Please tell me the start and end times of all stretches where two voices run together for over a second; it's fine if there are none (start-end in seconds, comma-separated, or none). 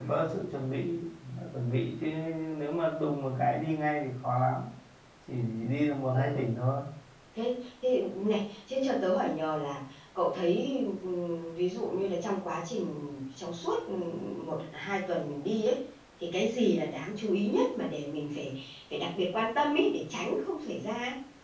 none